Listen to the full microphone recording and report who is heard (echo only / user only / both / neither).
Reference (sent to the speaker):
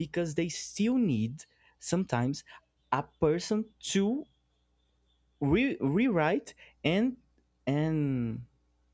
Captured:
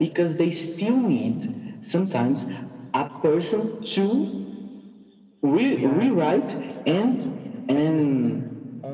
both